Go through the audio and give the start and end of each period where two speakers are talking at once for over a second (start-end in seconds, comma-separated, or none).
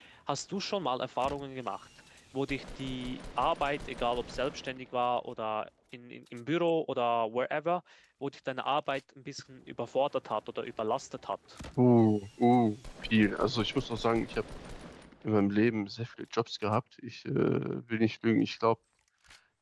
none